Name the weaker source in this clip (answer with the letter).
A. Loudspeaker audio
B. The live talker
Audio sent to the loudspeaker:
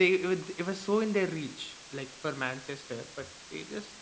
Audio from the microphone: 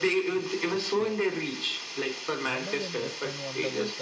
B